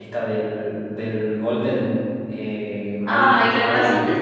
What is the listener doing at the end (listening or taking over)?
taking over